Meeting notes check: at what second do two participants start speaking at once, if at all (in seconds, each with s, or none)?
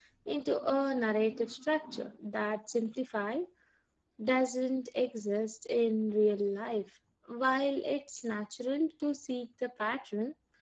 none